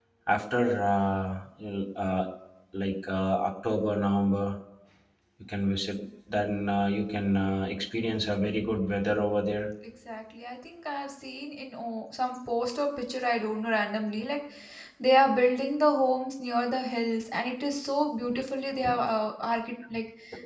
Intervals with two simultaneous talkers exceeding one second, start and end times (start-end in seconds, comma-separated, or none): none